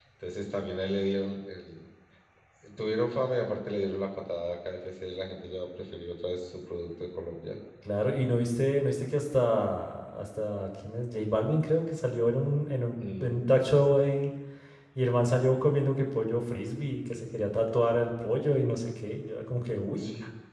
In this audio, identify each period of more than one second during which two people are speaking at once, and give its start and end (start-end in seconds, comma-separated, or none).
none